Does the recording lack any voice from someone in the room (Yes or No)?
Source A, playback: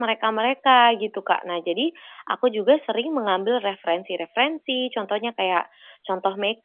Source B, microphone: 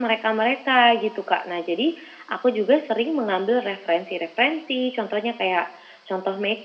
Yes